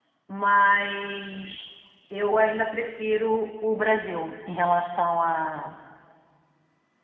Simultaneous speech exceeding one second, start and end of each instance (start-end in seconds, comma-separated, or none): none